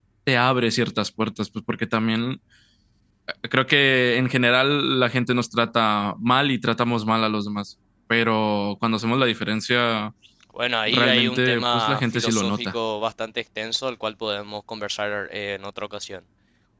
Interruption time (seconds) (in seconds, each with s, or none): 10.9 s